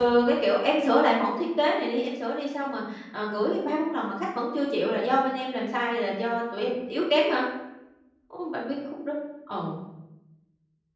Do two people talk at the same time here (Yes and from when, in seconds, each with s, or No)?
No